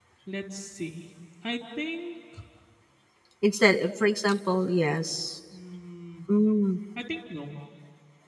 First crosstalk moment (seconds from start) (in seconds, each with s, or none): none